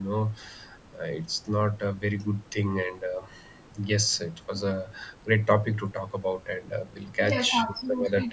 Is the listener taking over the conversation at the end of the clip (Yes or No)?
Yes